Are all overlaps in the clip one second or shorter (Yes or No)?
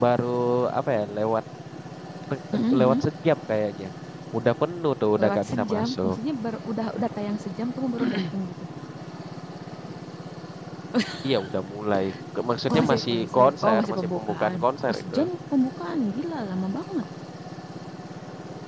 No